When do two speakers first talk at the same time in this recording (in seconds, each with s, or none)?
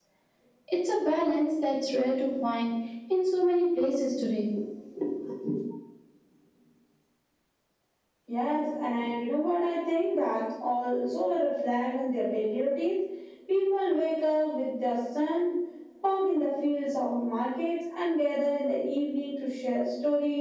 none